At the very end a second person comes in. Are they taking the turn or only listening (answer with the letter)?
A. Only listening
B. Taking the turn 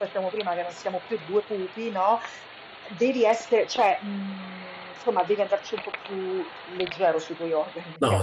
B